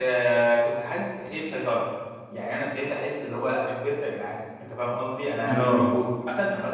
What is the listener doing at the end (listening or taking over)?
listening